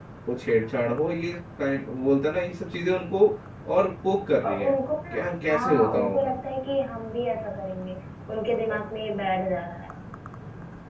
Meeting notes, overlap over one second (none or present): present